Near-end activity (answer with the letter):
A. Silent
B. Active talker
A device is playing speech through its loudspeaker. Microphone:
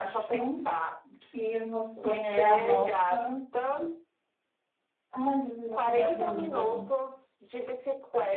B